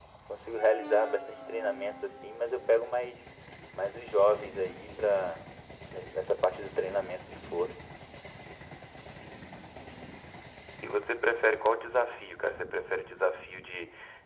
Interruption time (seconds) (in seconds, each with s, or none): none